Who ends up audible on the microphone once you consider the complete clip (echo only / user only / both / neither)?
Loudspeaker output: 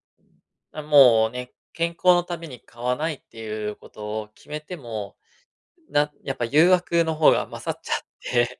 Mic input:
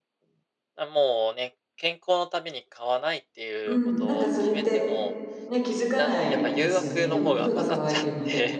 both